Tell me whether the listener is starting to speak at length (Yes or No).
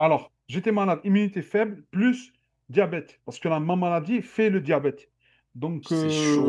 No